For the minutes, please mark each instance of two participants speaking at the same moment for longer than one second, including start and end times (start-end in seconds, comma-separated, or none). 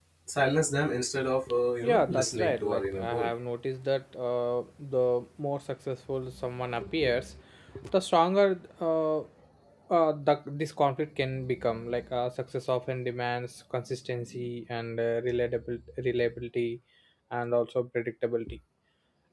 1.8-3.3